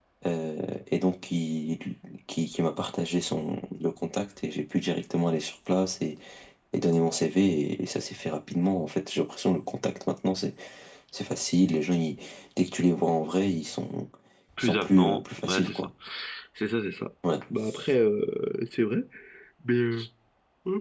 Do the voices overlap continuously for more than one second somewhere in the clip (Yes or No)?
Yes